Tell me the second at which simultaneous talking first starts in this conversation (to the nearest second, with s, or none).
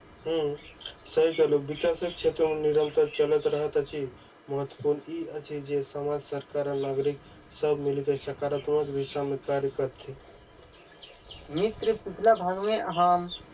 none